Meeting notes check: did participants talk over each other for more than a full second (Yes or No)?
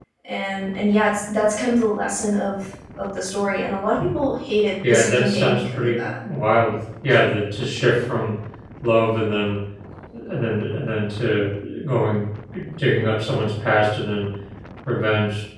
Yes